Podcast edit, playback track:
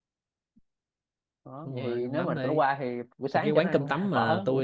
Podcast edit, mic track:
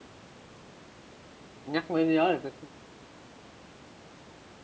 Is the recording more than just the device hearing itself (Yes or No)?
Yes